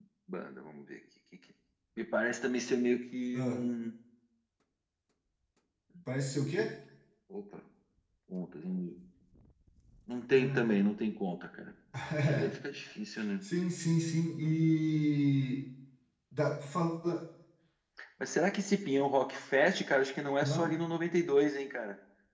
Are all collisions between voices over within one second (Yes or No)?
Yes